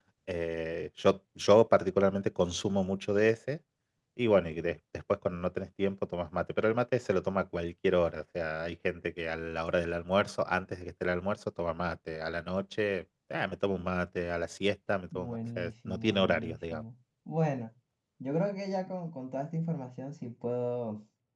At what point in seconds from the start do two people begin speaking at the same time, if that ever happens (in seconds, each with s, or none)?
15.1 s